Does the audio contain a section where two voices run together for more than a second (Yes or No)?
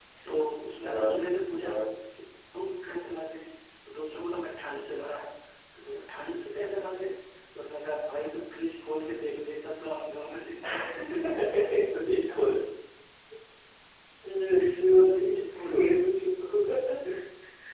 Yes